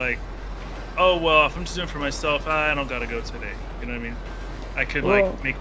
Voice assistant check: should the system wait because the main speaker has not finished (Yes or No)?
Yes